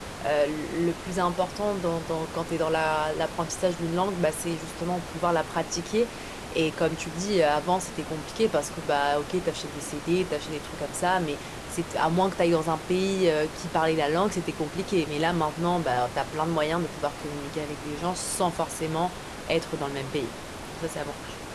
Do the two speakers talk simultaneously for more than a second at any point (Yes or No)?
No